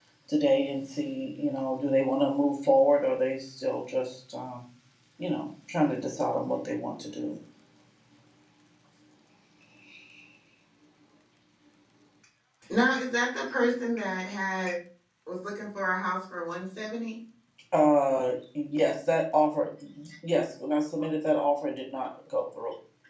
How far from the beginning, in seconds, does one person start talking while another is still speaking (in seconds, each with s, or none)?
none